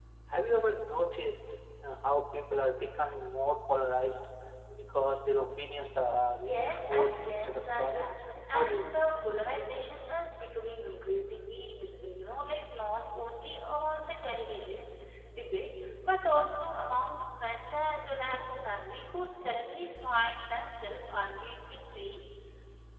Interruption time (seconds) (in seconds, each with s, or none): 6.3 s